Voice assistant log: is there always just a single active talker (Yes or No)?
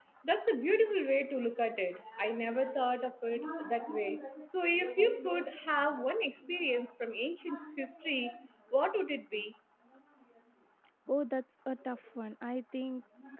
Yes